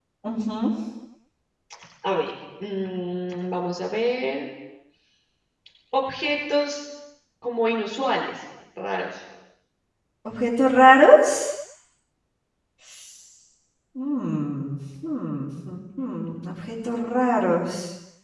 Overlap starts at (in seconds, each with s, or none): none